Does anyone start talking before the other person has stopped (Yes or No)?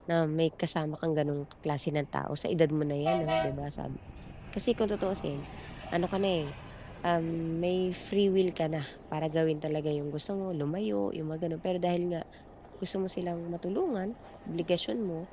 No